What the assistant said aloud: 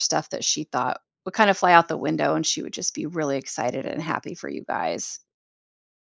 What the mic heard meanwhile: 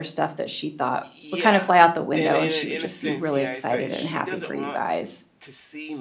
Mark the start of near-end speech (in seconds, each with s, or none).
1.0 s